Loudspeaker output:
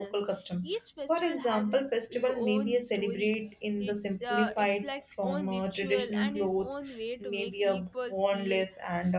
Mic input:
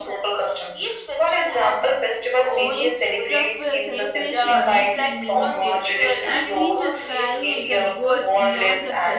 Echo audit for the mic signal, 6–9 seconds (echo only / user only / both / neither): both